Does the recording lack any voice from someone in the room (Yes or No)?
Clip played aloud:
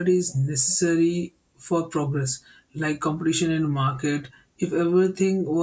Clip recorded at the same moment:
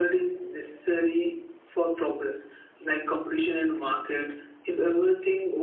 Yes